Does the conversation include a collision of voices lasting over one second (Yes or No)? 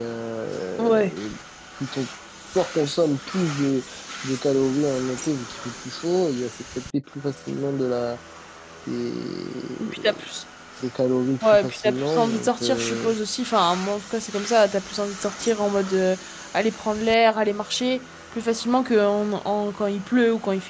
Yes